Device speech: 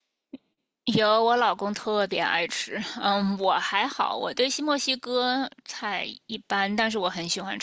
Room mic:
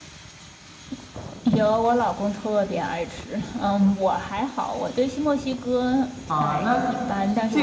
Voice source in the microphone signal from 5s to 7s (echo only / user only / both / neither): both